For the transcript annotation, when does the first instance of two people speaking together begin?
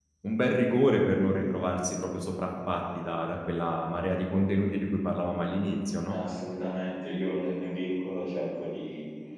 none

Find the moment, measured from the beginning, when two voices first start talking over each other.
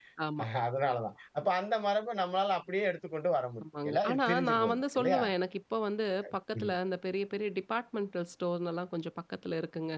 3.6 s

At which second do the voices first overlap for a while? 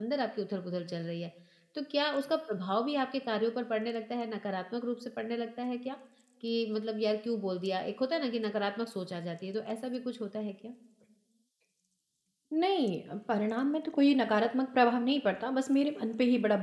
none

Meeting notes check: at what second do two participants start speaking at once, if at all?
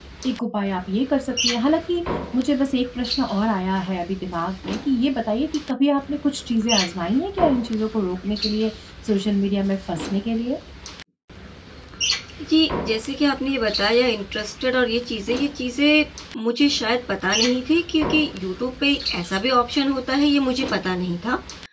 none

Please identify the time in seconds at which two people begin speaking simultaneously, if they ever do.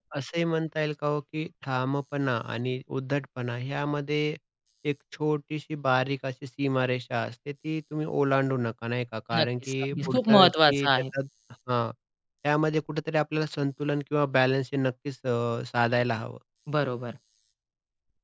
9.3 s

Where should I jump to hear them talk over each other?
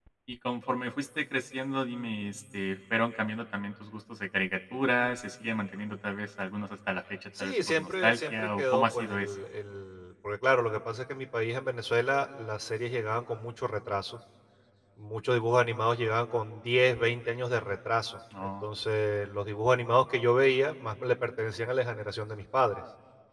7.4 s

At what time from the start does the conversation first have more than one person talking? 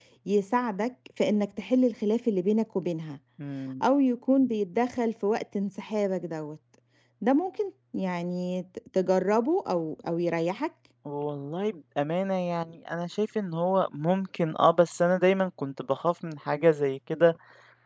none

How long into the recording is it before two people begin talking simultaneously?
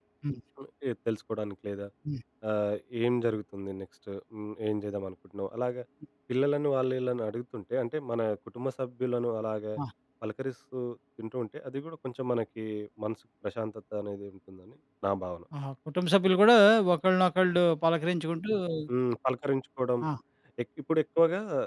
none

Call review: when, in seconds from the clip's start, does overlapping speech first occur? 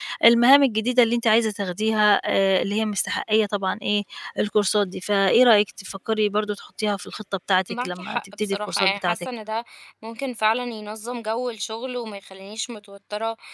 7.7 s

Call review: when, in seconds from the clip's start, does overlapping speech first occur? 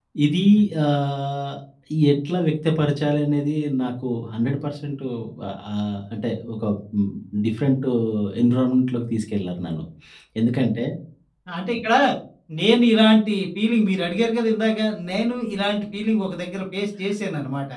none

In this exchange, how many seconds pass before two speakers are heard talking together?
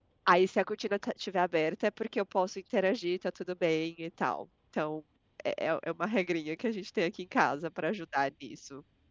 none

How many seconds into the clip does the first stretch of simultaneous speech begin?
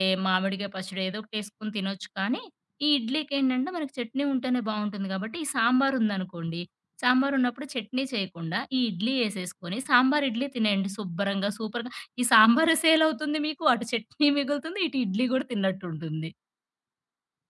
none

